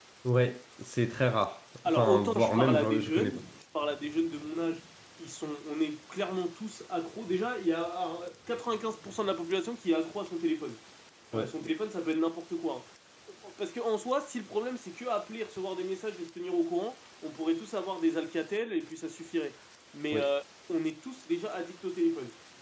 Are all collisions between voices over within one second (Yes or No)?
No